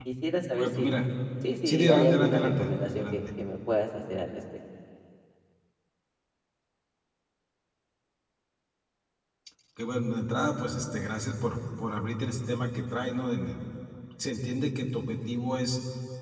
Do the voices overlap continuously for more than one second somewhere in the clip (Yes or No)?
Yes